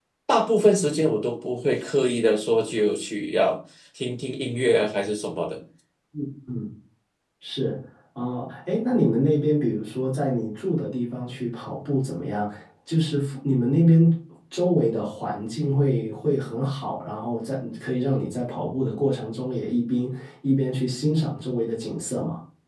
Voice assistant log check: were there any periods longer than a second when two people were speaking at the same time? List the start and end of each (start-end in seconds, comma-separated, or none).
none